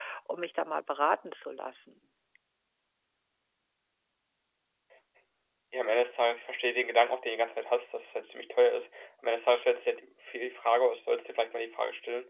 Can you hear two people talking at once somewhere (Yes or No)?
No